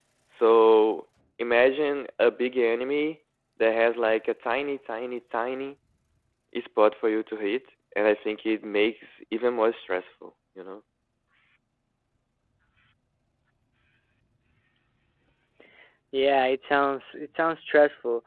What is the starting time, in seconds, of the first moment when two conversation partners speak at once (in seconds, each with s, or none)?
none